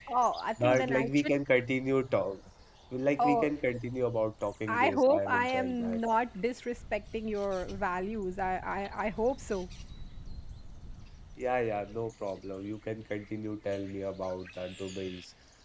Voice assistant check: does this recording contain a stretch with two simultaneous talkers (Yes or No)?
Yes